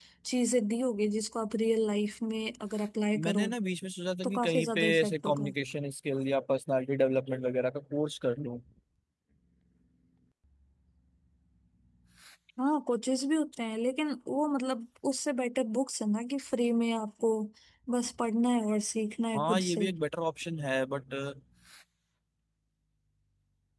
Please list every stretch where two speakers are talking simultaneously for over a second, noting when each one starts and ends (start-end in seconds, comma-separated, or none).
4.2-5.5